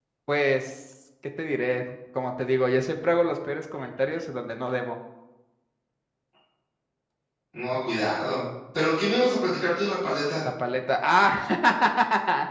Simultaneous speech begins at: none

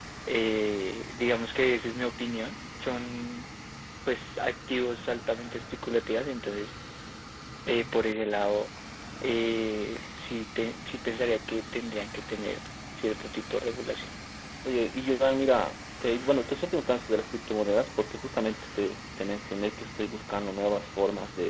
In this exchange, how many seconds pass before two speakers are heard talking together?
none

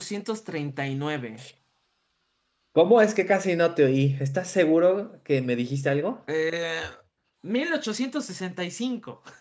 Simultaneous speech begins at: none

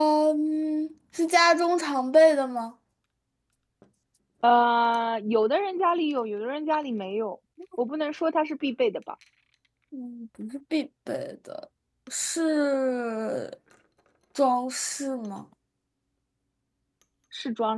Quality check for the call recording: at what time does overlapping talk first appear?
none

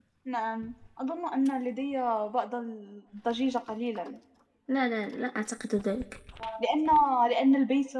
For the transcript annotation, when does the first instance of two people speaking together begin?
none

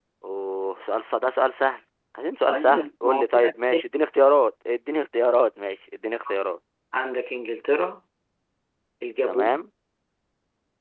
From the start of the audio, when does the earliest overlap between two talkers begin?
2.5 s

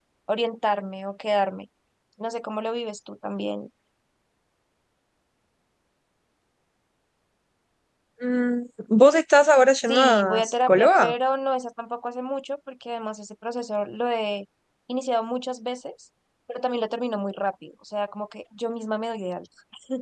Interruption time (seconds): 9.9 s

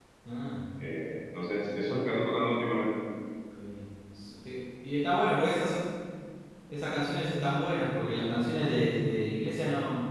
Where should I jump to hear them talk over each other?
none

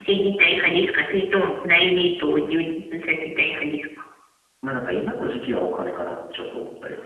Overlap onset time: none

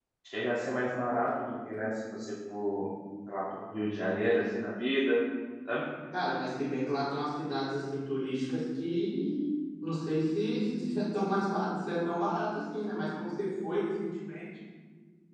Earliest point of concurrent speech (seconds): none

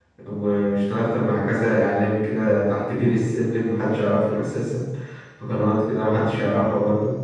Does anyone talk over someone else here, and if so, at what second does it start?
none

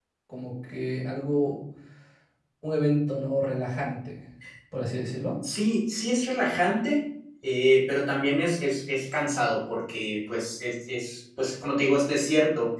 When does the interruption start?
none

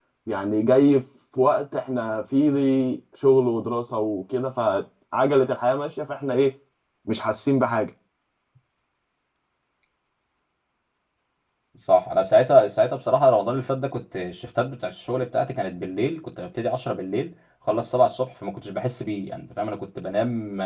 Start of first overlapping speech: none

